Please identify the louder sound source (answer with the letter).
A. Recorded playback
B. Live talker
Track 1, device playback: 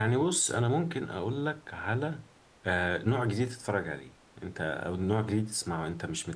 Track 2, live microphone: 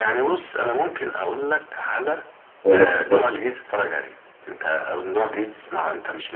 B